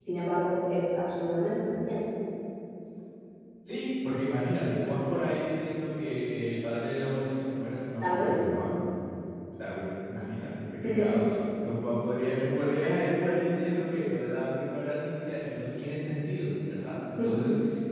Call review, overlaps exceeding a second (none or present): none